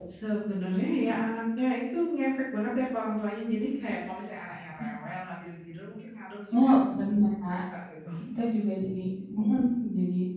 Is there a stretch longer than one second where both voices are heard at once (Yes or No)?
No